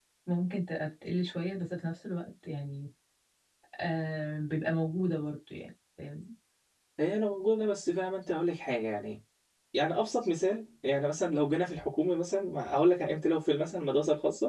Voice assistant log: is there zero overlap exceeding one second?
Yes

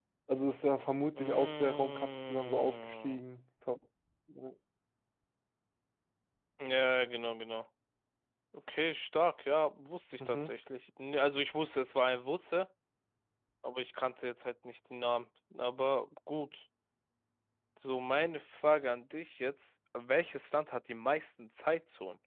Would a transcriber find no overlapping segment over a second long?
No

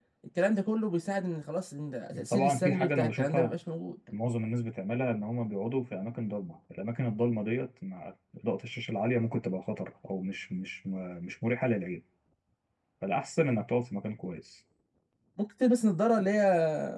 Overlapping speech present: Yes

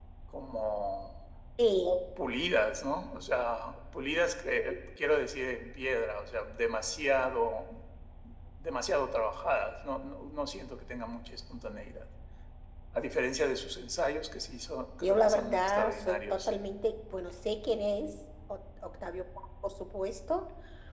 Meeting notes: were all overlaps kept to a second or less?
No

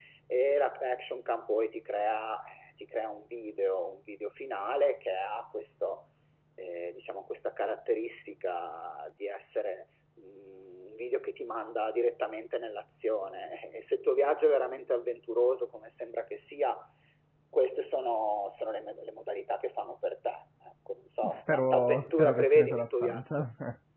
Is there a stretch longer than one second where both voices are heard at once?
Yes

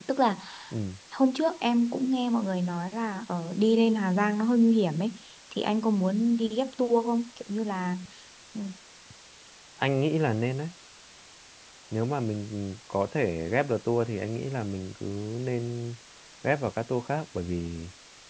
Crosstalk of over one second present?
No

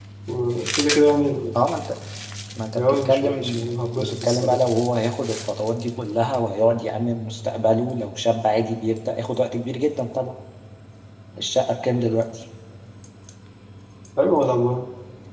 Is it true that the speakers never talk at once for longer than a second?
No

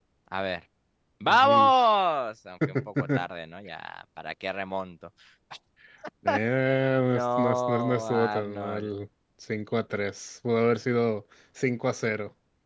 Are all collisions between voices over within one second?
No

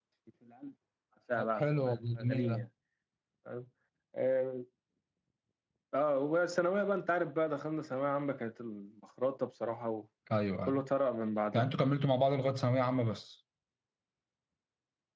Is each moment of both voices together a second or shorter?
No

